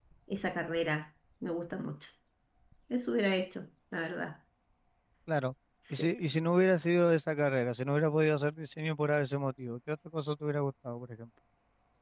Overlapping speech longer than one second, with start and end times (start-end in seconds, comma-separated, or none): none